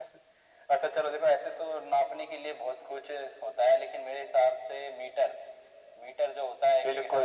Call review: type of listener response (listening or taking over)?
taking over